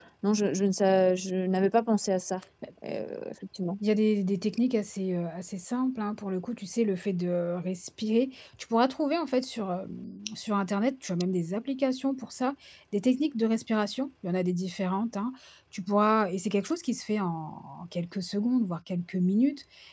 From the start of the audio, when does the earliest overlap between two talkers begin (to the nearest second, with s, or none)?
none